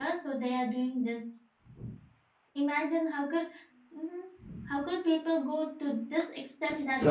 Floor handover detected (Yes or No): No